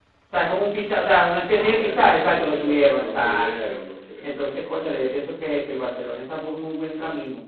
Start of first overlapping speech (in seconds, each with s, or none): 1.4 s